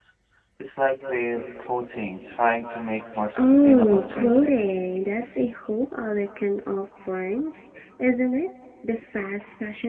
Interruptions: present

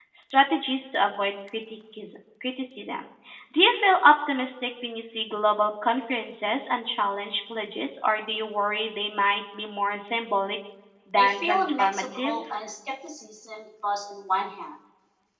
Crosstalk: present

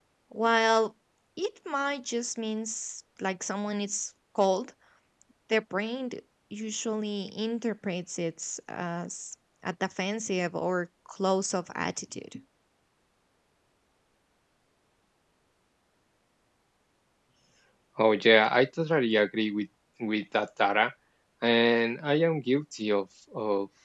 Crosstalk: none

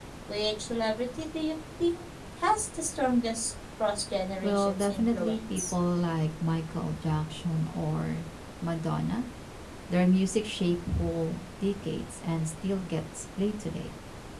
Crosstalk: present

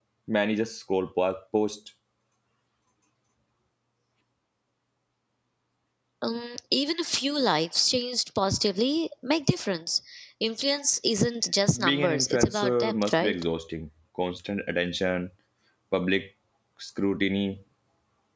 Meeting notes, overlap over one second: present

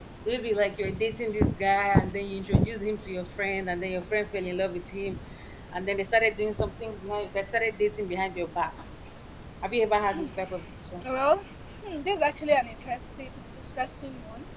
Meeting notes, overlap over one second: none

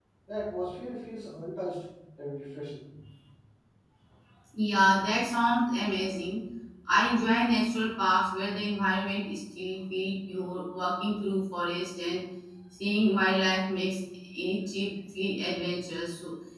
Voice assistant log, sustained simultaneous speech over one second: none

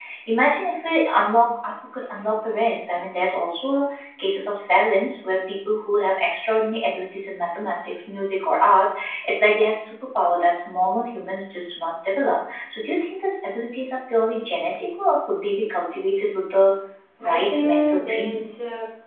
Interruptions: present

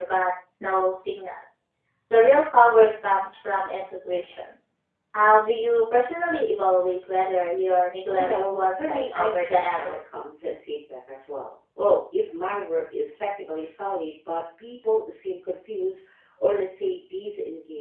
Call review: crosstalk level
present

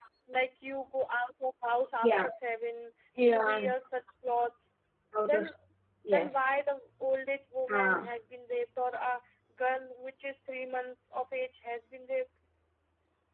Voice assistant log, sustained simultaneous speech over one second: none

